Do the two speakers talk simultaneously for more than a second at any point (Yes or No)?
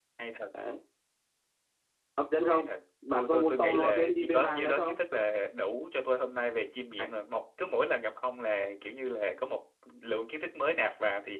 Yes